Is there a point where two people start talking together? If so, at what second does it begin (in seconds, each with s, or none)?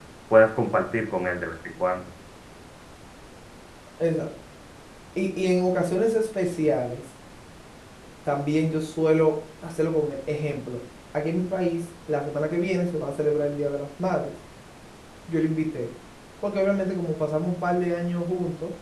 none